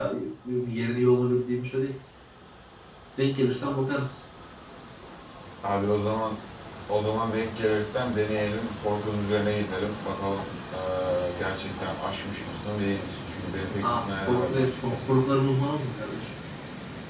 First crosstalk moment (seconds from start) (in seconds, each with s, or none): 13.7 s